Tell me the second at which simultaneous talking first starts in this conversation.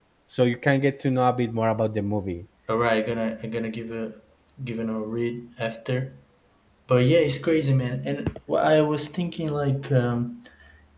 none

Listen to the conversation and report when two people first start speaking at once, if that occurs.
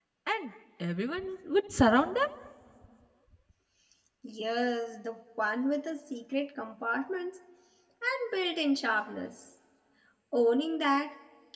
none

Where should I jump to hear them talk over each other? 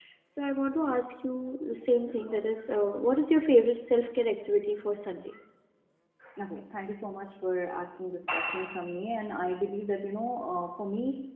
none

